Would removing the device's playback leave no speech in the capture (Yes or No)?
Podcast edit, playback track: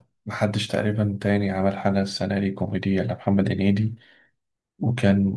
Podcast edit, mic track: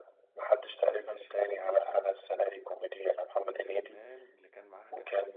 No